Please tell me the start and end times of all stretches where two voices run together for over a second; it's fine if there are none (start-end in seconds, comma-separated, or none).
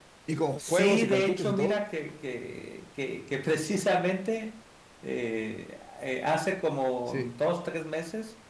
0.6-1.8